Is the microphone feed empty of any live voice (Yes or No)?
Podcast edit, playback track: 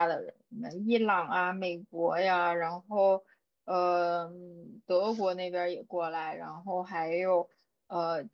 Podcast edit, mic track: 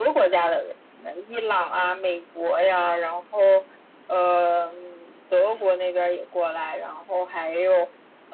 Yes